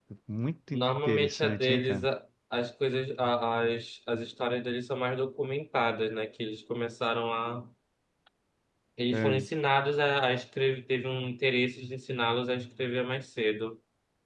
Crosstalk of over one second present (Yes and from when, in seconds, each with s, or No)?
Yes, from 0.8 s